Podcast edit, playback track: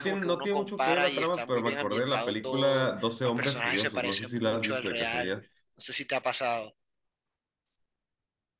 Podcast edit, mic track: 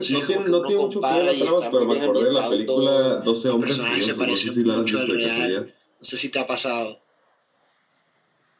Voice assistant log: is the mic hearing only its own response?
Yes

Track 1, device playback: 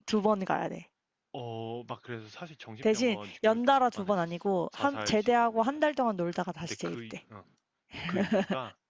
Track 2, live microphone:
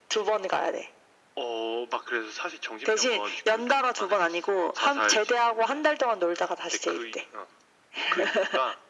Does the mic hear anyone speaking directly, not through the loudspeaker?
No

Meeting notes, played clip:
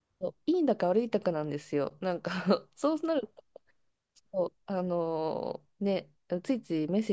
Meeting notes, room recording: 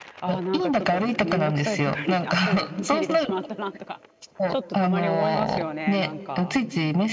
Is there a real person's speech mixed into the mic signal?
Yes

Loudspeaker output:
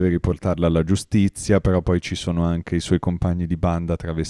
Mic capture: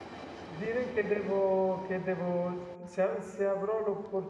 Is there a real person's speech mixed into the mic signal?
Yes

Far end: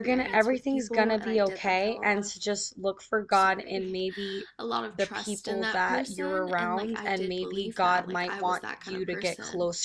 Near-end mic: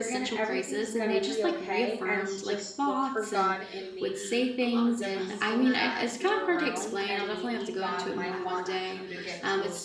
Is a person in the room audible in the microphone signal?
Yes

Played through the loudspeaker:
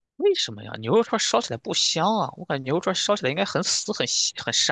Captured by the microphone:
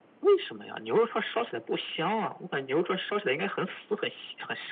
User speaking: No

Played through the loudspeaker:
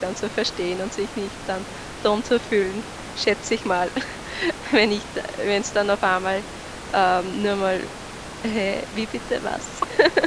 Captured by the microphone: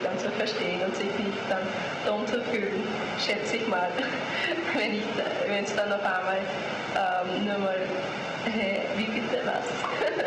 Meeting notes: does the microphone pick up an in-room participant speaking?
No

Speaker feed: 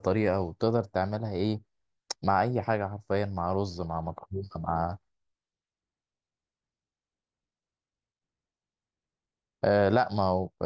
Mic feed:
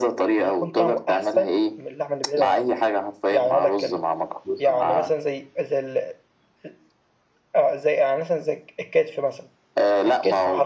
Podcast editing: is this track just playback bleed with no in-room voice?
No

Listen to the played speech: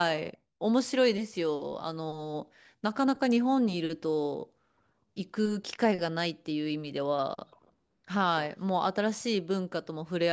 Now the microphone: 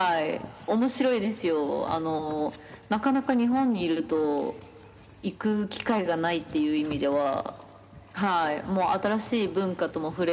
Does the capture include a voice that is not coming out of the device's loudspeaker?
No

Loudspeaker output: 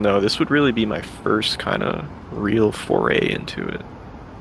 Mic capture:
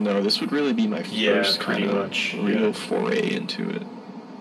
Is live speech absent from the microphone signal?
No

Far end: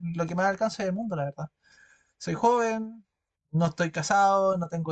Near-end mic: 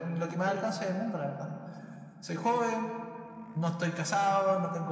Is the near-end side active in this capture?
Yes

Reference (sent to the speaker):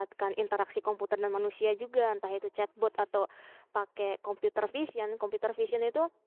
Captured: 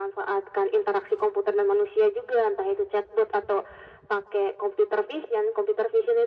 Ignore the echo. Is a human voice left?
No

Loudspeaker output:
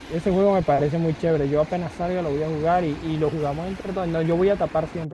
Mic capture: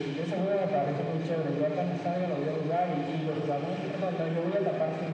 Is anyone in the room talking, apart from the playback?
No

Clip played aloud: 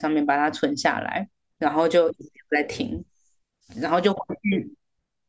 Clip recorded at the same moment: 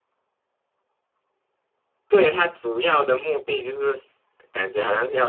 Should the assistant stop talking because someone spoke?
Yes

